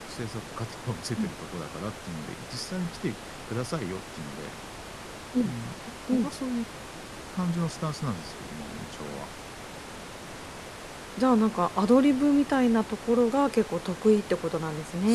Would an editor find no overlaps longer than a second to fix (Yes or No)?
Yes